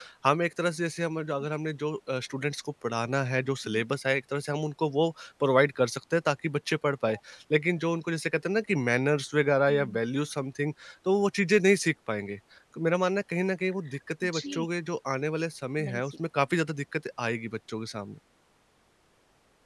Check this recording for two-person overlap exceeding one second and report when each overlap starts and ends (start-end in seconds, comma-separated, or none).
none